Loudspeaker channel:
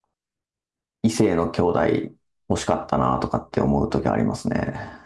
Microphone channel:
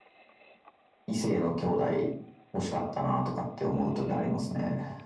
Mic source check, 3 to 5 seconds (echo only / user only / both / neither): echo only